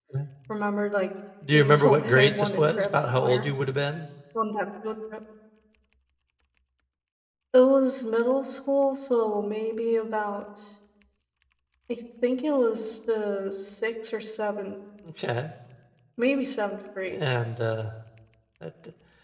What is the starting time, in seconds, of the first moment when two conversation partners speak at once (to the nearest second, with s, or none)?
2 s